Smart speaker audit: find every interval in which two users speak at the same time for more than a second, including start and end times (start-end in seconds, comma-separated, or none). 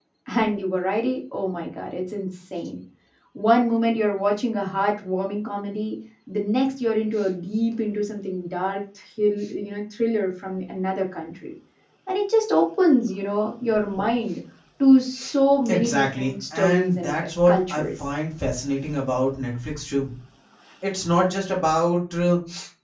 15.7-17.8